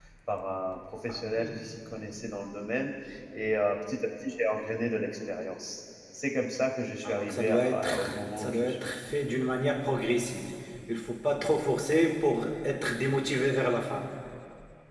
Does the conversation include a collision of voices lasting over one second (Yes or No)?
Yes